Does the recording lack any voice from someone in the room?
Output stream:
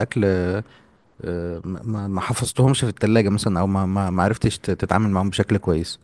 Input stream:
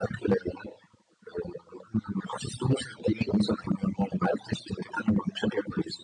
Yes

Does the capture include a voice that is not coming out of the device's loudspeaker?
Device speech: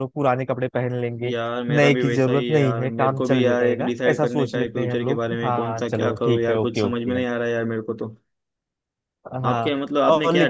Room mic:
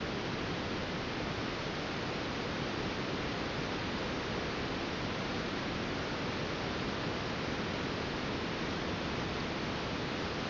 No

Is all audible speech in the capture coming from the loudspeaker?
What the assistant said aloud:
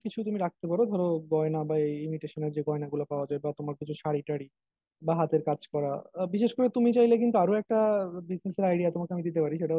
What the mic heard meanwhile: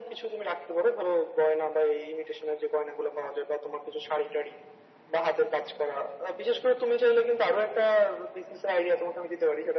Yes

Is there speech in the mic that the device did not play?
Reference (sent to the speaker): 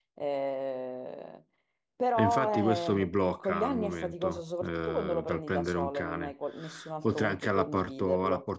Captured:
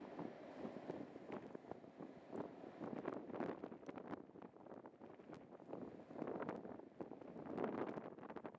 No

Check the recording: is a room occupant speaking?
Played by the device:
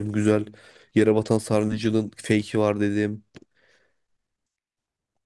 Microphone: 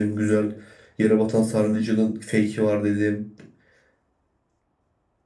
No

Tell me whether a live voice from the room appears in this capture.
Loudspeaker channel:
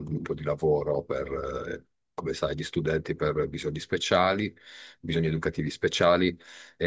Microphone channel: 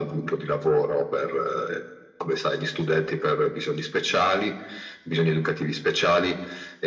No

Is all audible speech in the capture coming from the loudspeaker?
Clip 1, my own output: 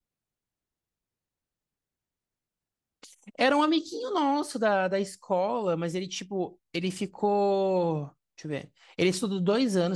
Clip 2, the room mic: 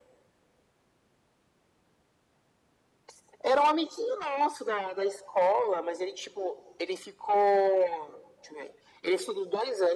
Yes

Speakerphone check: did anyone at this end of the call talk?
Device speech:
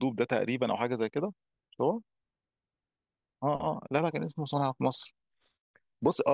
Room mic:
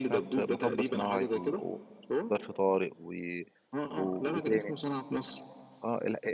Yes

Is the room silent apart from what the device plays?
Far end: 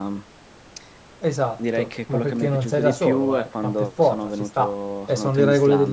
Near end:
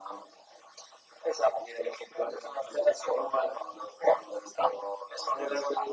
Yes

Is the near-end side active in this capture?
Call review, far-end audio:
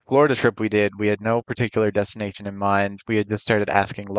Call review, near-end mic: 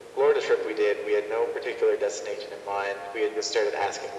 No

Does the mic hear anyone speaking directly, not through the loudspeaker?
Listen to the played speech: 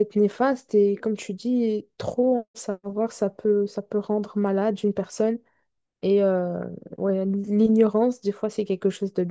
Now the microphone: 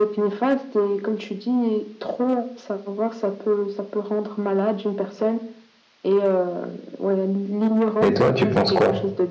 Yes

